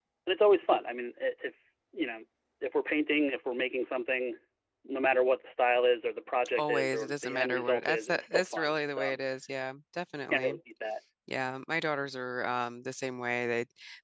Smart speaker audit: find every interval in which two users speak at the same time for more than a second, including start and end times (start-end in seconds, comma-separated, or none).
6.6-9.2